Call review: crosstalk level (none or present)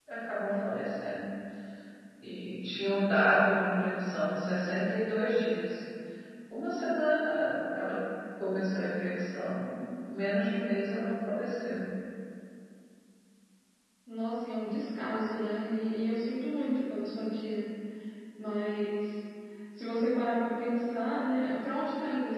none